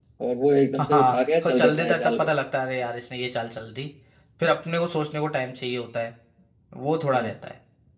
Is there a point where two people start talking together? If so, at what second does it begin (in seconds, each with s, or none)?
0.8 s